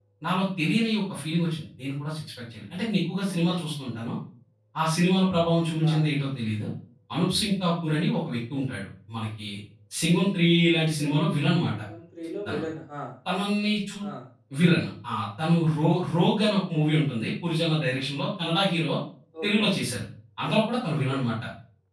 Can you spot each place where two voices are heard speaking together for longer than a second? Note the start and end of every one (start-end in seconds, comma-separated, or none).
none